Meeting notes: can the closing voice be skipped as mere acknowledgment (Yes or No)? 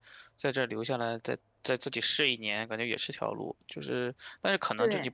Yes